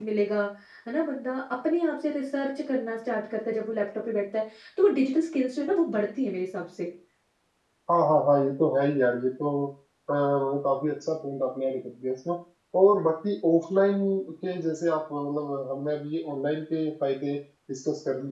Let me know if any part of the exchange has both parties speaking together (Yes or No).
No